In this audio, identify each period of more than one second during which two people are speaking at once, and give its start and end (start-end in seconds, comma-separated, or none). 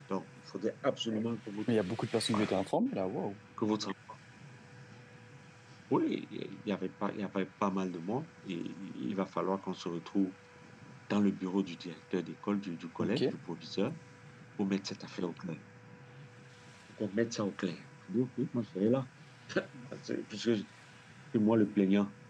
none